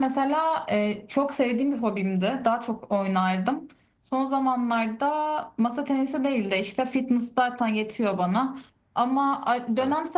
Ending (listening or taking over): listening